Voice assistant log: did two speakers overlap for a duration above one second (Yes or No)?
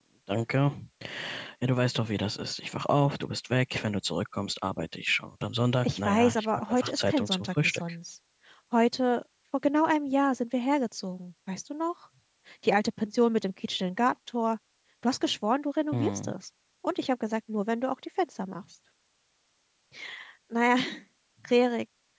Yes